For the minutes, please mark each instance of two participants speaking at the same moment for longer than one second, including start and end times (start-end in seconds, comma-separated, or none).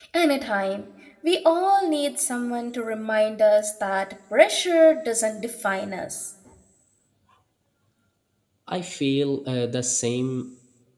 none